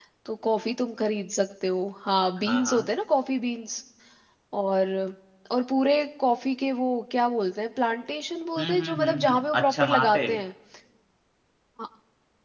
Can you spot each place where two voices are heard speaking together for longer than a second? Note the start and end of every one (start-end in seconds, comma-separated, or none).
8.6-10.2